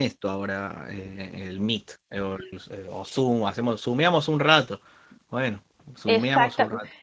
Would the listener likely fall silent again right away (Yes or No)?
No